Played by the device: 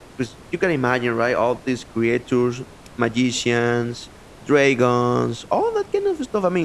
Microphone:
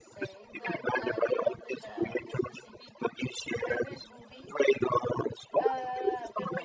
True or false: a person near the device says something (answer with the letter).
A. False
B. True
B